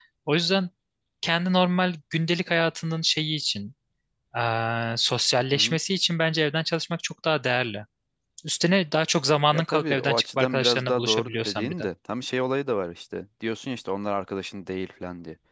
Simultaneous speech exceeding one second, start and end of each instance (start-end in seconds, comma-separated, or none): 9.5-11.9